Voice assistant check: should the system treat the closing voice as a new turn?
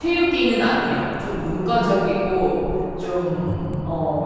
No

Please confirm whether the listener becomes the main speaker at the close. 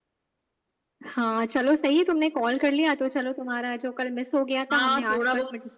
Yes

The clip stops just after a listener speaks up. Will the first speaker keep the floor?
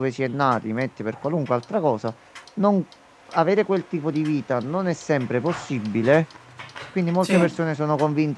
Yes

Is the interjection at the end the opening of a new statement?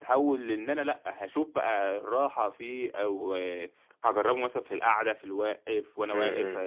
No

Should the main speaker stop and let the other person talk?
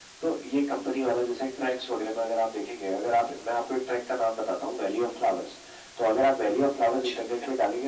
No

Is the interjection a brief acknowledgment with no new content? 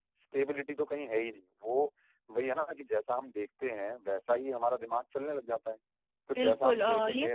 No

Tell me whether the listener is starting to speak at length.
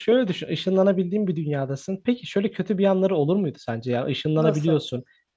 No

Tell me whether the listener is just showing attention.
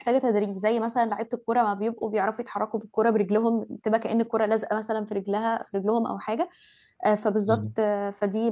Yes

